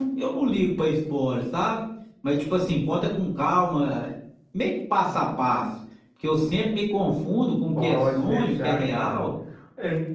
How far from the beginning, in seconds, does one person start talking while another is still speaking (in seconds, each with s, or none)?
7.8 s